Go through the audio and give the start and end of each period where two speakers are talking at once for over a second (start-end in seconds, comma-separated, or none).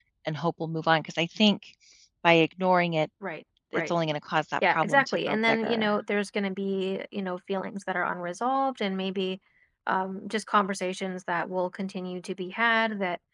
4.7-5.9